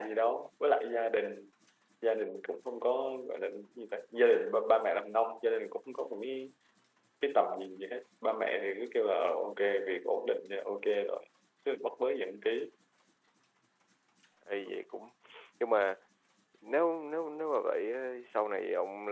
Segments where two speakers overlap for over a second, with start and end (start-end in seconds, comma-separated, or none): none